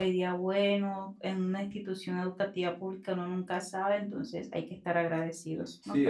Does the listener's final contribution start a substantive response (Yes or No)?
Yes